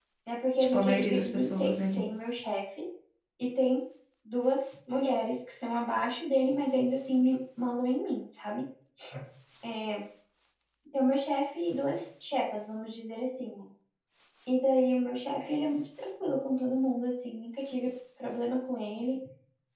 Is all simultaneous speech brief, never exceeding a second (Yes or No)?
No